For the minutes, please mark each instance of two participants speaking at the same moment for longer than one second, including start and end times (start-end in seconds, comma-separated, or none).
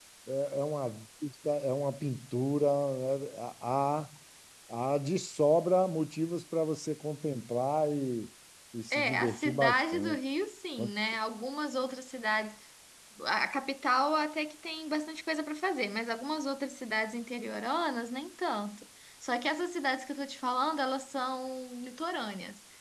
8.9-10.2